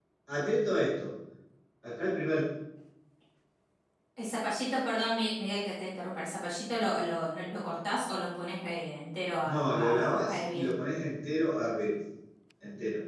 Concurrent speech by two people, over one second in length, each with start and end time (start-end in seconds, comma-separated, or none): 9.4-10.7